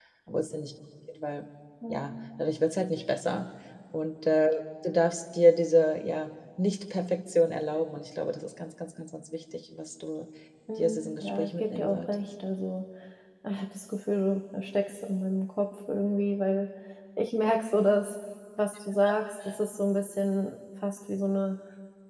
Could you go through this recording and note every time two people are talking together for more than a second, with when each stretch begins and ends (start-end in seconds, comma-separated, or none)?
10.8-12.3